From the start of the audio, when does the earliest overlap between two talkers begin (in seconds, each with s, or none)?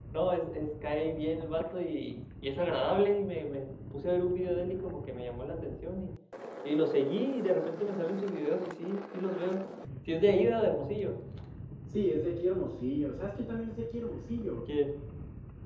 none